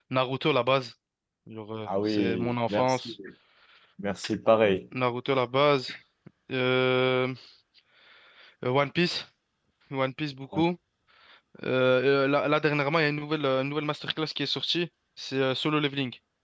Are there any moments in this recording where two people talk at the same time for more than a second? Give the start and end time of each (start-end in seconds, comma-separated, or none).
1.9-3.1